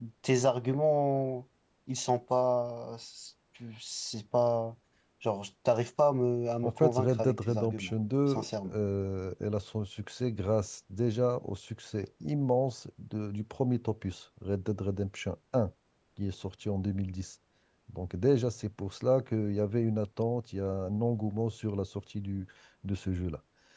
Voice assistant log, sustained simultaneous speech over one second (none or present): present